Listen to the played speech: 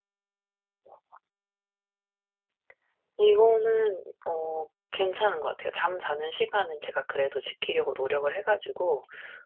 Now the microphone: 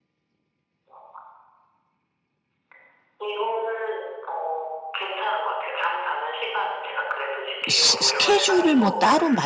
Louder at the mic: user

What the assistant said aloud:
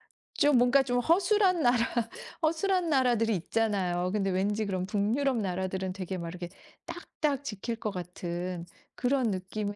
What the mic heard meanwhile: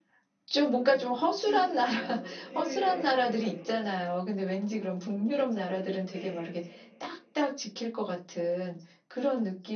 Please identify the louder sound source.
echo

